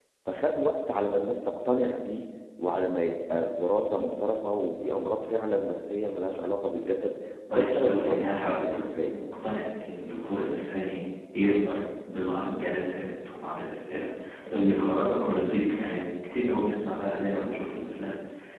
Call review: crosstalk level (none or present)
present